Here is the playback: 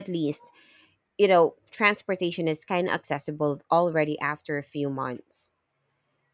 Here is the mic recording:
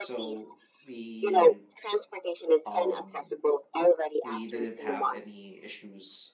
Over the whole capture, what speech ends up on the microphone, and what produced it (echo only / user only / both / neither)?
both